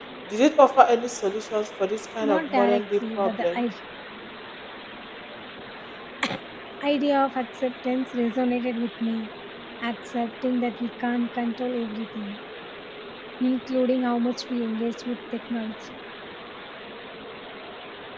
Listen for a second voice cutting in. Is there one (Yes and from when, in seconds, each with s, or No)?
Yes, from 2.2 s